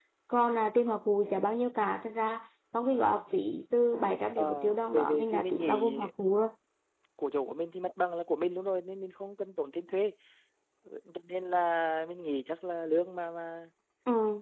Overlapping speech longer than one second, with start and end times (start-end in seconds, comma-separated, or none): 4.4-5.9